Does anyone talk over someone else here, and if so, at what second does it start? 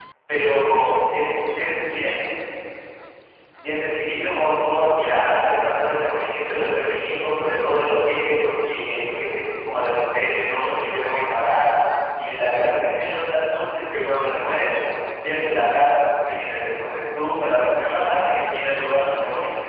none

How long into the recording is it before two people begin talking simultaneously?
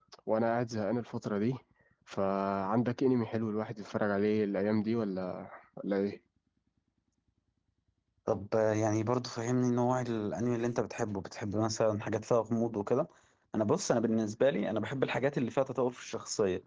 none

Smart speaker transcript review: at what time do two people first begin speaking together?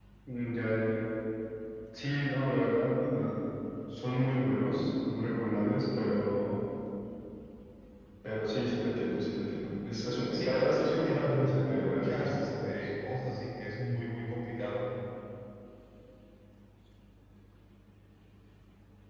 10.3 s

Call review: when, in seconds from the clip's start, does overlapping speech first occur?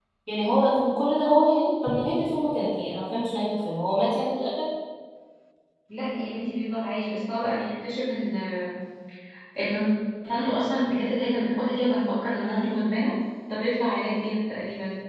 none

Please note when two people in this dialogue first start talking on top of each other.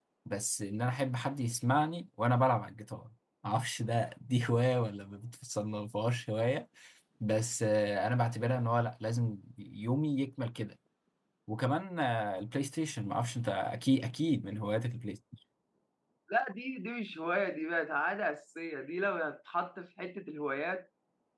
none

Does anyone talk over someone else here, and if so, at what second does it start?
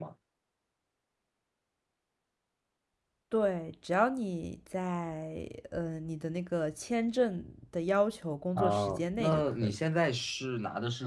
8.6 s

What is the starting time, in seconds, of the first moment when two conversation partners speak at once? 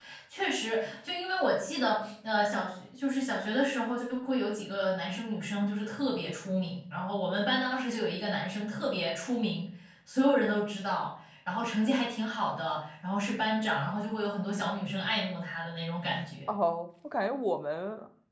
none

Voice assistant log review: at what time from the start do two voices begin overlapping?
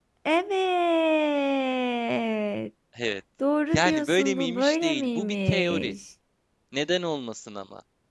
3.7 s

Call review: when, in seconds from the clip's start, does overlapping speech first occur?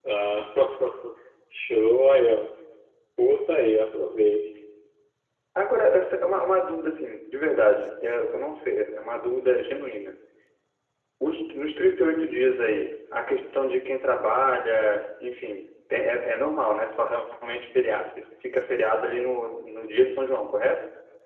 none

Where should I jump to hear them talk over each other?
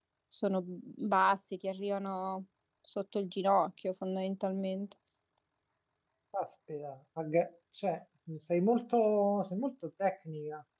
none

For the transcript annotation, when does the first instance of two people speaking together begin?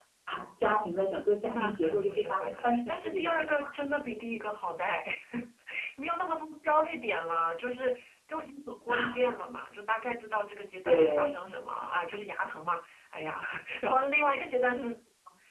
1.4 s

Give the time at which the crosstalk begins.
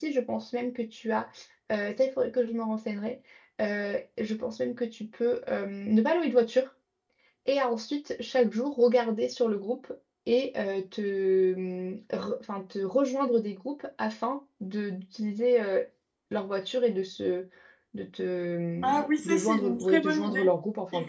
18.8 s

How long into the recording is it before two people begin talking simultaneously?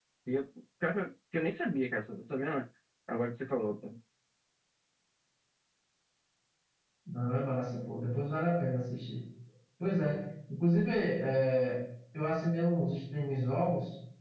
none

